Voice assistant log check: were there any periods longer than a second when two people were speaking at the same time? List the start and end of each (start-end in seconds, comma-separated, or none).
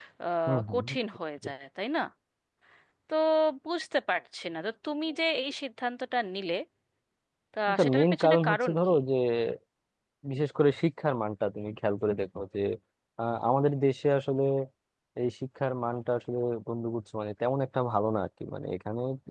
7.7-8.9